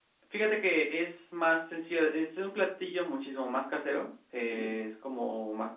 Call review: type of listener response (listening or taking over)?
listening